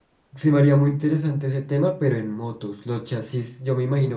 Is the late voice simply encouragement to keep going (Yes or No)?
Yes